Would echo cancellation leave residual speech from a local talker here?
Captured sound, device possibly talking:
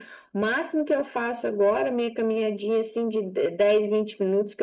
No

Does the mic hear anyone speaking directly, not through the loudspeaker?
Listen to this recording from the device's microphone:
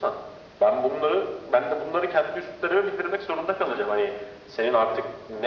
No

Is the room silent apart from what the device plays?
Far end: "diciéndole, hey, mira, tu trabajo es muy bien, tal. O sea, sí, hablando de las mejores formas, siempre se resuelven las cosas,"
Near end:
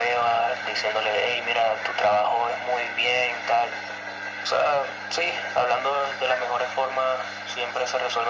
Yes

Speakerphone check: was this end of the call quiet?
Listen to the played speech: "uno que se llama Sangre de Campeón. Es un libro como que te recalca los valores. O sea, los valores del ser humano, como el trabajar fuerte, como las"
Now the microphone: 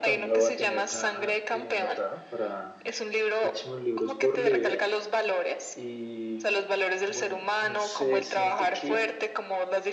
No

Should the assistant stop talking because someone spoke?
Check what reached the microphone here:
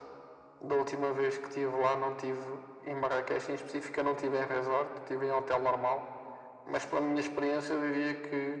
No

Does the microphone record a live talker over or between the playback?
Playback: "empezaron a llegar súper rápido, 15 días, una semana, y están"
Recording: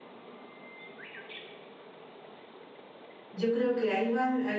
Yes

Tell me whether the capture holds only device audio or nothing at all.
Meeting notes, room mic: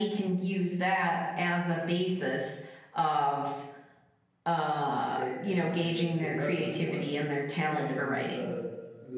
No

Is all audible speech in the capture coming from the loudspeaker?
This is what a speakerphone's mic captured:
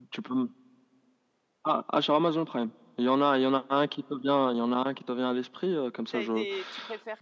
No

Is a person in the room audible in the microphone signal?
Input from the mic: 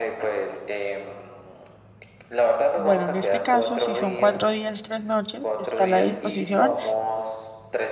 Yes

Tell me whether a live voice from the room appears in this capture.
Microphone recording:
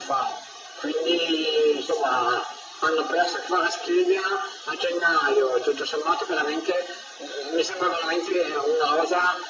No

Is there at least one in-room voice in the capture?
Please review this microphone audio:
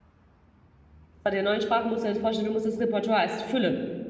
Yes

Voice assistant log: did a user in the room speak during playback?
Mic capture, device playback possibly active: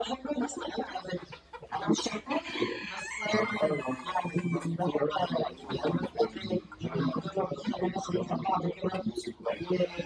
No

